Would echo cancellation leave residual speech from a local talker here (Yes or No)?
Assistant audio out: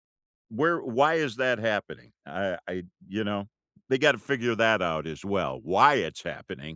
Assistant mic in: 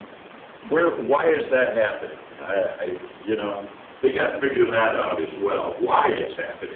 No